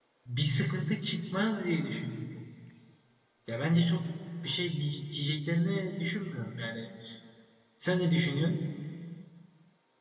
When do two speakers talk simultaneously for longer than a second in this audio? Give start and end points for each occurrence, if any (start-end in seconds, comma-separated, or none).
none